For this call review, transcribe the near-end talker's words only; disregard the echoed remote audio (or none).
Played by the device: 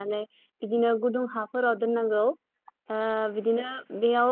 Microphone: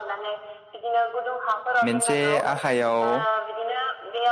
मोनसे आ आखायाव